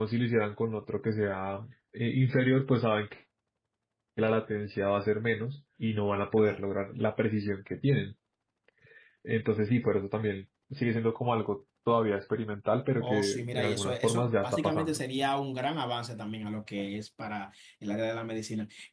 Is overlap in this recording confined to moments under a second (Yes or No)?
No